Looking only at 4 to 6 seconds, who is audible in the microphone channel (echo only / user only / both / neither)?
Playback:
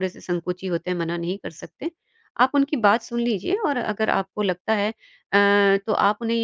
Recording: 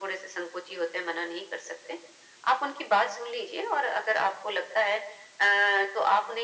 echo only